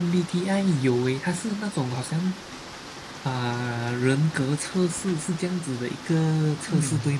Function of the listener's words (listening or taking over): taking over